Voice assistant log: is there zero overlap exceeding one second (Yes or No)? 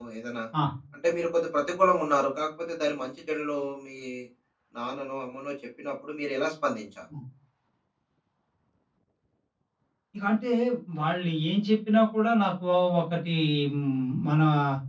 Yes